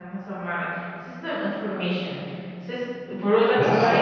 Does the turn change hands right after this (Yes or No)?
Yes